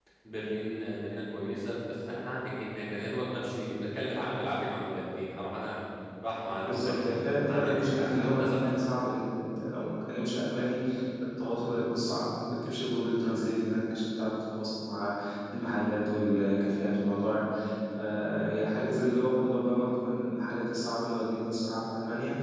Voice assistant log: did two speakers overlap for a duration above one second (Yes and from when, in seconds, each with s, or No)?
Yes, from 6.6 s